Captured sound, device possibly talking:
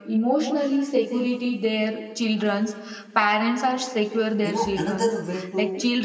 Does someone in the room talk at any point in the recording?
Yes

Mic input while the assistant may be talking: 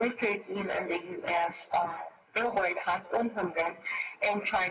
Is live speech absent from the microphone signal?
Yes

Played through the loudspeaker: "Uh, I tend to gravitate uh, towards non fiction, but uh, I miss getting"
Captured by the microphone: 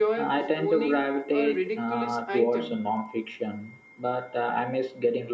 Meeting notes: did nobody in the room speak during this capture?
No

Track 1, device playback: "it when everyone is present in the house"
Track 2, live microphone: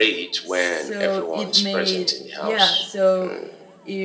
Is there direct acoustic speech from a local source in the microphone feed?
Yes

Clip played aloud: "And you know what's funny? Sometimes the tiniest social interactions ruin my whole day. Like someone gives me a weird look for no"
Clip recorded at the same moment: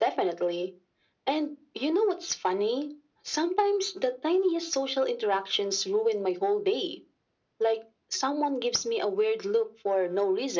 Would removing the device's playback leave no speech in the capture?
Yes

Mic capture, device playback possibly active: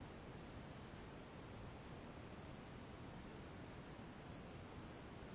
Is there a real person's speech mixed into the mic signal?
No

